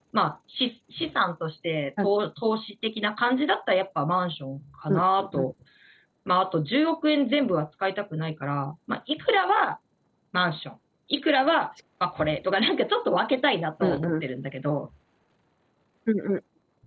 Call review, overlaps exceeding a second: none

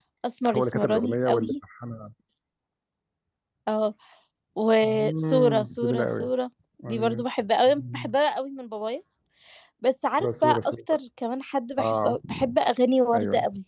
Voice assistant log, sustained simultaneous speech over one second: present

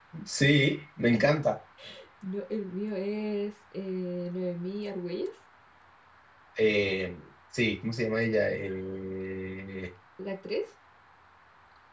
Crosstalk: none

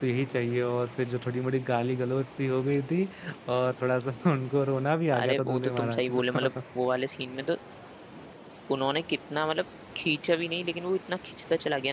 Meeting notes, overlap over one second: present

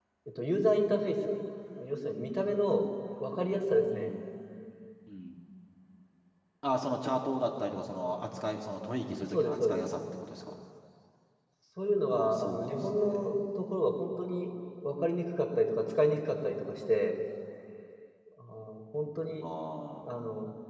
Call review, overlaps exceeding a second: present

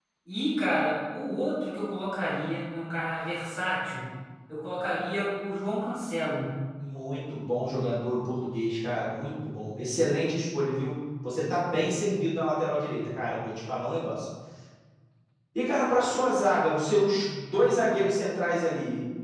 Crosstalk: none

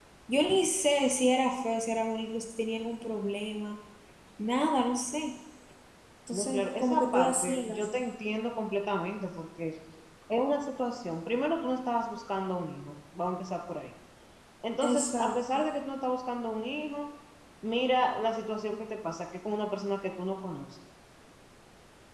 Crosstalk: present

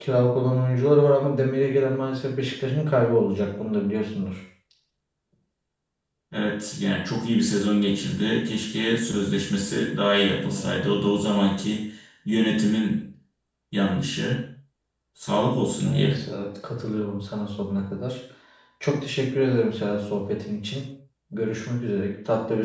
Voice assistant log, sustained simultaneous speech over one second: none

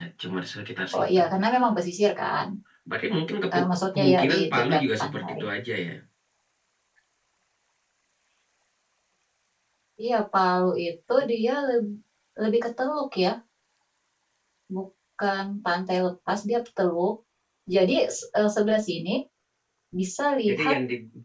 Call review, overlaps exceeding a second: present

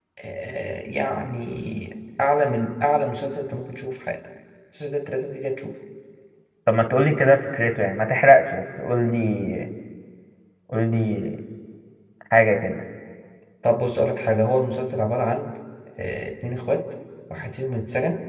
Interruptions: none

